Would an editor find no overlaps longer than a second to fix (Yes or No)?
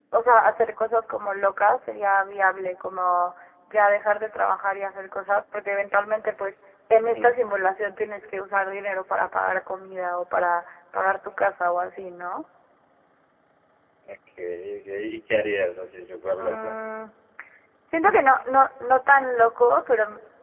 Yes